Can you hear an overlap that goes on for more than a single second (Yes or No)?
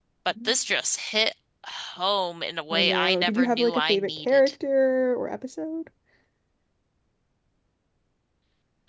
Yes